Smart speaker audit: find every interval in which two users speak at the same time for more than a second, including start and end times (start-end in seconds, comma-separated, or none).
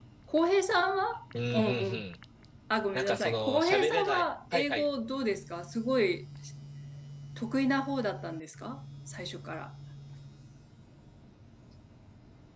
2.9-4.9